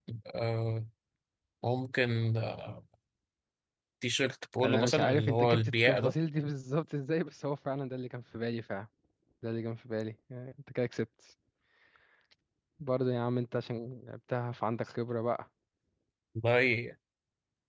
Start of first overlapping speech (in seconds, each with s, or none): 4.6 s